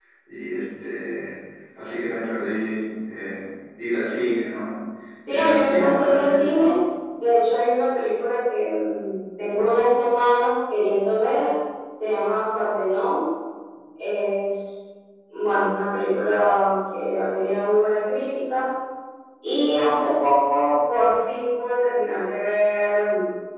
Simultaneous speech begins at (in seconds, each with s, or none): 5.3 s